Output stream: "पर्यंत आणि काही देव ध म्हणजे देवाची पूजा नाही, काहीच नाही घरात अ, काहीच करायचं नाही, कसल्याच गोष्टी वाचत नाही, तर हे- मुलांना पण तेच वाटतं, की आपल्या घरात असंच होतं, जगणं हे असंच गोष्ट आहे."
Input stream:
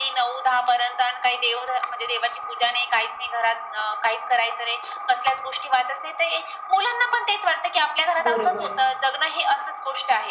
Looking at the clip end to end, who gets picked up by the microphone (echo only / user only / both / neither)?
both